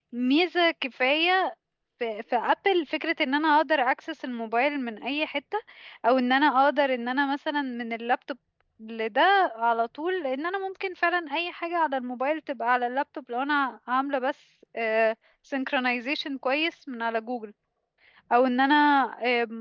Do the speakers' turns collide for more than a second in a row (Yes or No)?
No